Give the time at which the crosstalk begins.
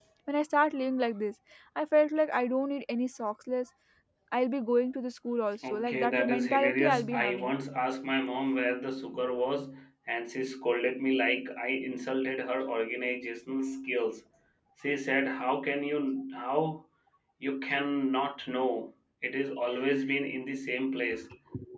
5.6 s

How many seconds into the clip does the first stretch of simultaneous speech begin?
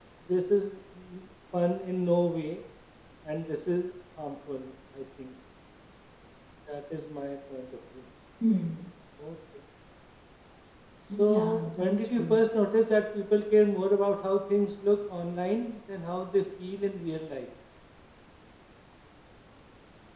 11.2 s

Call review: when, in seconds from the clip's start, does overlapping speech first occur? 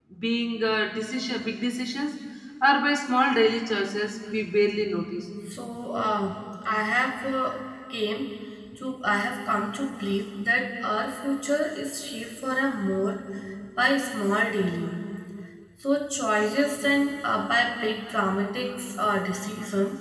none

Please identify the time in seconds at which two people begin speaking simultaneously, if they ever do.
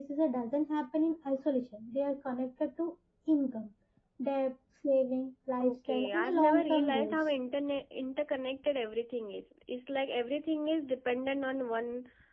5.6 s

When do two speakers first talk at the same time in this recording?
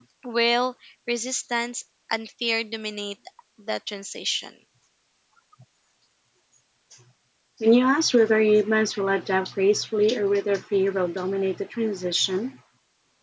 none

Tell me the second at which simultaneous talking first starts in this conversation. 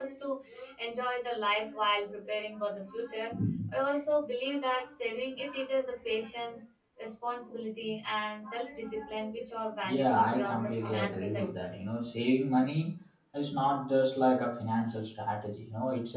9.8 s

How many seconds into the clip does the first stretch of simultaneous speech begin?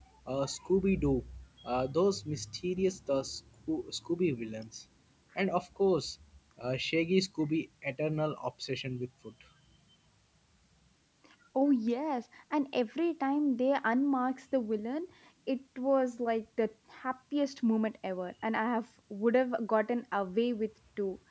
none

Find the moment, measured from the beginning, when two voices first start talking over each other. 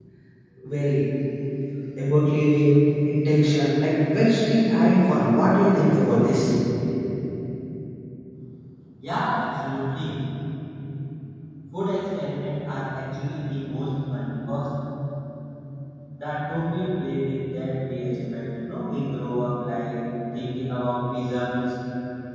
none

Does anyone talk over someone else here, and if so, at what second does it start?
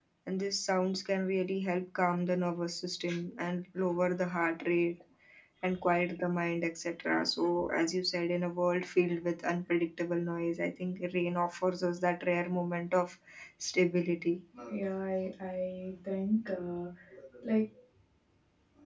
none

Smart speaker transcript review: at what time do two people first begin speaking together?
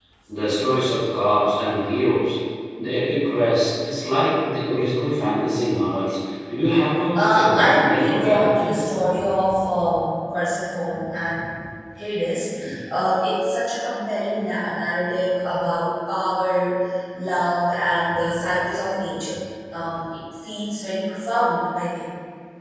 7.2 s

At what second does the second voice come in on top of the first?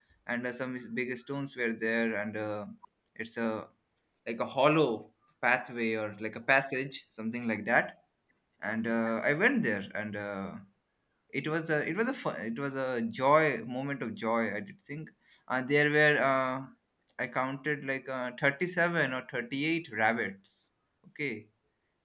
none

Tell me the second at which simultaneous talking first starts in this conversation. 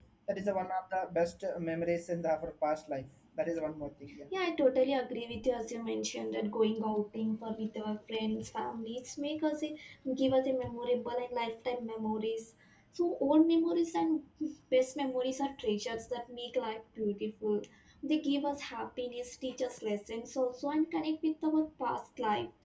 none

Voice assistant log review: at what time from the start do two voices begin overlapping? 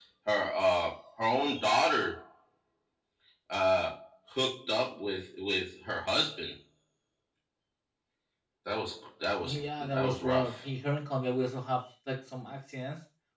9.4 s

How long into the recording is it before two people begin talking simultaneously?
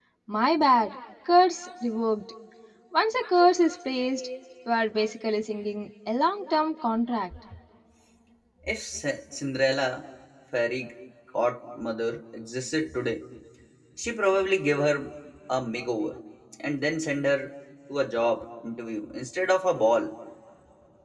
none

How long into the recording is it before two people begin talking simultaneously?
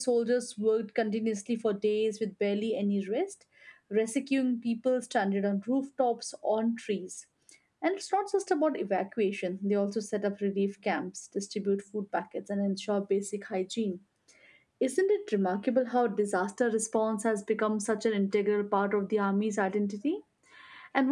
none

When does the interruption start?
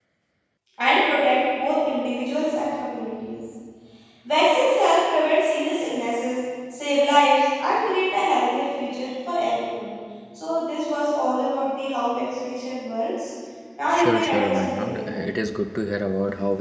13.9 s

